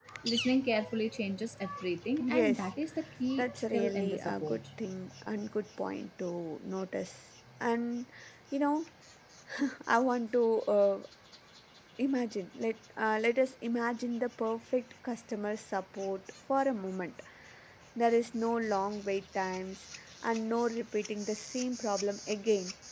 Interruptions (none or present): present